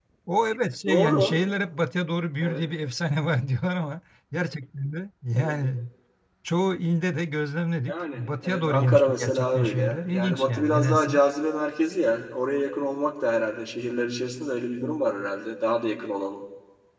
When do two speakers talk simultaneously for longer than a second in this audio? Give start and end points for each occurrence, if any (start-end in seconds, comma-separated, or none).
7.9-11.2